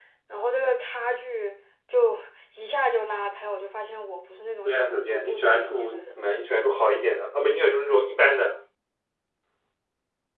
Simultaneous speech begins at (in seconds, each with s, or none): 4.7 s